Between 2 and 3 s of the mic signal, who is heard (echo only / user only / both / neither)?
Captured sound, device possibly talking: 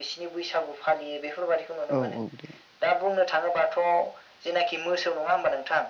both